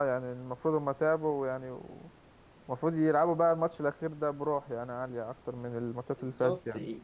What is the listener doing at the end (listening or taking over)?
taking over